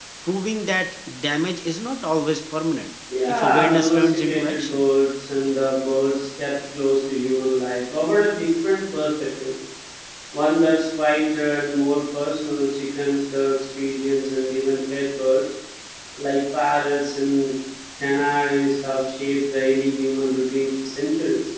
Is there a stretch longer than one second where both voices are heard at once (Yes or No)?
Yes